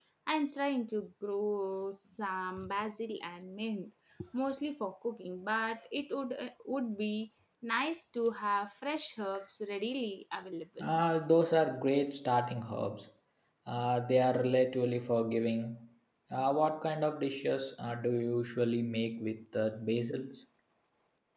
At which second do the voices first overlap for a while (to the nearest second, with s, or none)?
none